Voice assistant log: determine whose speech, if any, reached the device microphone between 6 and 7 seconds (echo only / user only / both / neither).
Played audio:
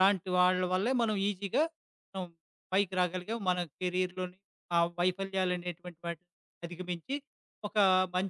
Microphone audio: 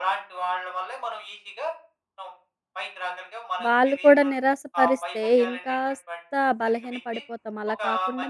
both